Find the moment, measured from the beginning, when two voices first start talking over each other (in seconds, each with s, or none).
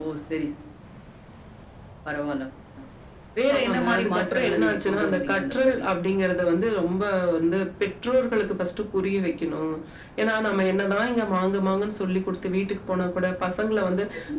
3.6 s